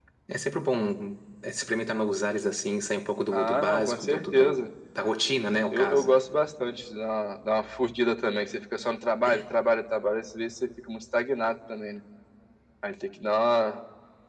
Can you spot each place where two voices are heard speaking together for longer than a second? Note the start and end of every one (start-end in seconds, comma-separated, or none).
3.3-4.6